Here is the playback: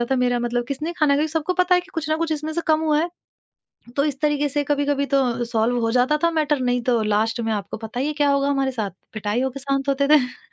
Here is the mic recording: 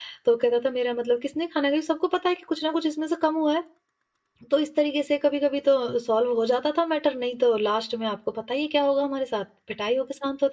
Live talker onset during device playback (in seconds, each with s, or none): none